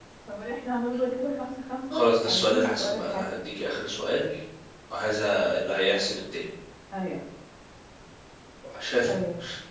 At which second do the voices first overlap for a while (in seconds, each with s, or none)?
1.9 s